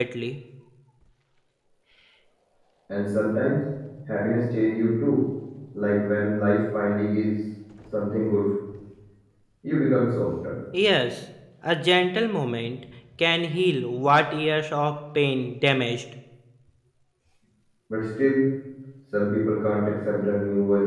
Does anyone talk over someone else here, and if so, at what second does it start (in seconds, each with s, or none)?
none